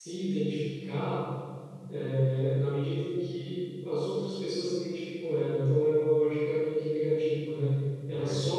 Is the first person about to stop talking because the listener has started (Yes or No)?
No